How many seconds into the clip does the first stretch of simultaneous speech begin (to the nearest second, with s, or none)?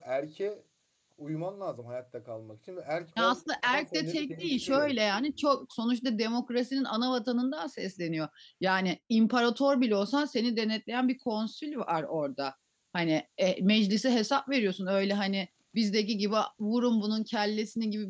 3 s